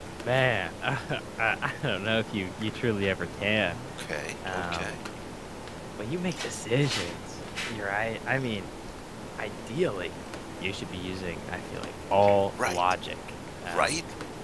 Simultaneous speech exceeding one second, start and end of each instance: none

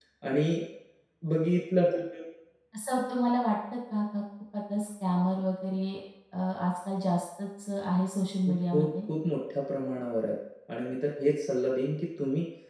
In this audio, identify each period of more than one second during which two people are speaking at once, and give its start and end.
none

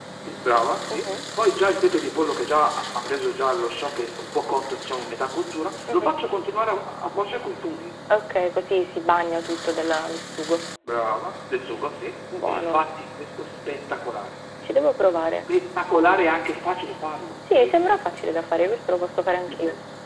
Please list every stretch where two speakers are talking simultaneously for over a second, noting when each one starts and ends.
none

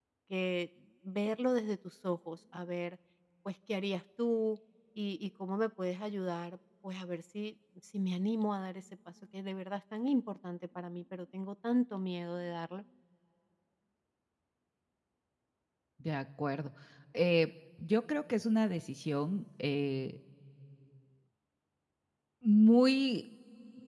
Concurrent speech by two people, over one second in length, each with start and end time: none

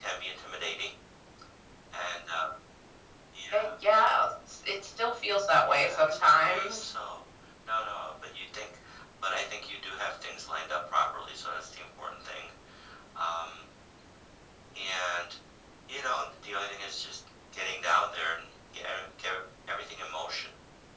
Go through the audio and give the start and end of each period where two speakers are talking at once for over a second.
5.6-6.9

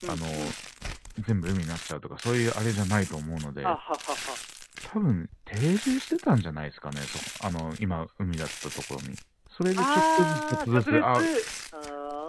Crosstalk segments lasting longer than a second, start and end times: 9.8-11.2

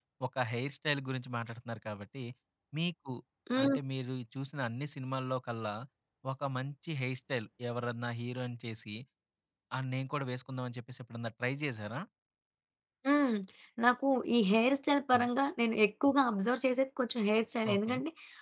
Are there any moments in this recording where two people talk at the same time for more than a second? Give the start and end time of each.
none

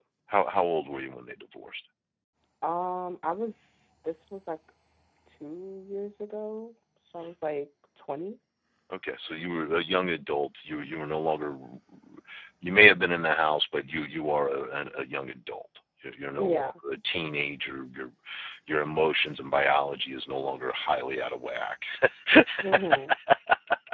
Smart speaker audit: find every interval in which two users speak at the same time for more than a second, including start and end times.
none

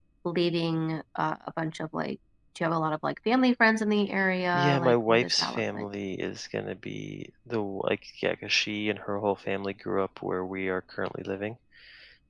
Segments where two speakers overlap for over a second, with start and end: 4.5-5.8

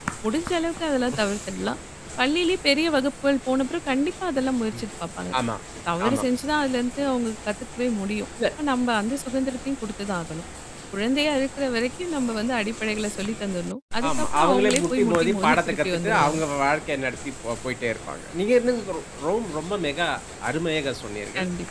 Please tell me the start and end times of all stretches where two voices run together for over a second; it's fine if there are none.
14.1-16.4

